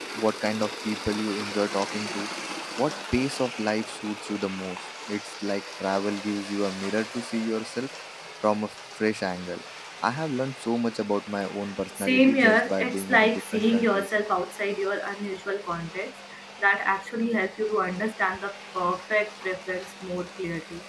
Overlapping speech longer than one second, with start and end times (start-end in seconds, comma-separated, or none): 12.0-14.1